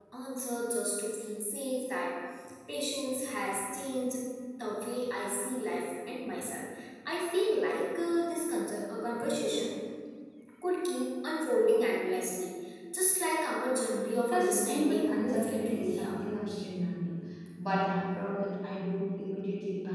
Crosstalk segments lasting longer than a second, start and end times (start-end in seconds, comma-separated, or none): 14.3-16.2